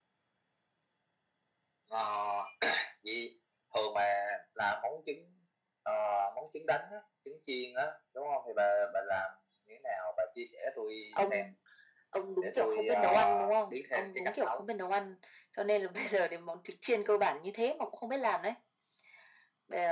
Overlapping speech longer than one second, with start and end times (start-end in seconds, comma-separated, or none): 12.4-14.6